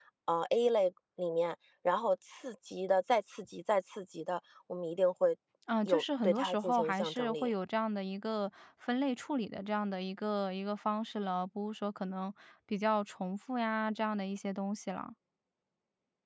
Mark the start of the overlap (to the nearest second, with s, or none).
6 s